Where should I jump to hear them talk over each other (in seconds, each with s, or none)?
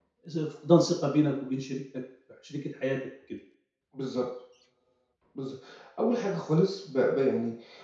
none